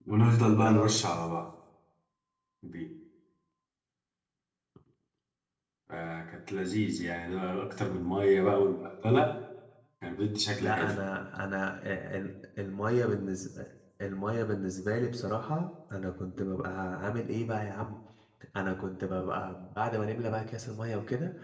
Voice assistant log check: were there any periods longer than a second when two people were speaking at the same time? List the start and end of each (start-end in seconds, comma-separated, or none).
none